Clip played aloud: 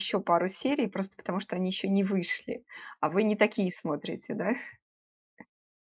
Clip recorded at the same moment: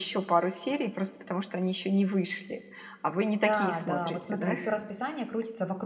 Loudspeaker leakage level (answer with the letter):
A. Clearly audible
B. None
A